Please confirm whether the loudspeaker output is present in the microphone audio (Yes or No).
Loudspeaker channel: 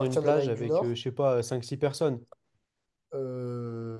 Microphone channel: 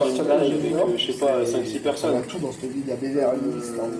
Yes